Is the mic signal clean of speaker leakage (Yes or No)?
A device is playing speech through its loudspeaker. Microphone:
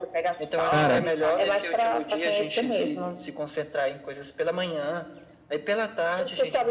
No